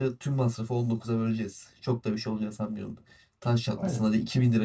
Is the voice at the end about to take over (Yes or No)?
No